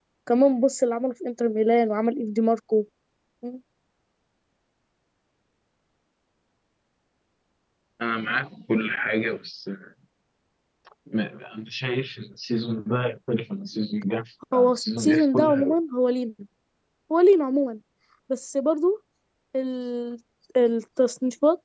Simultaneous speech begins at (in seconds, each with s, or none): 14.5 s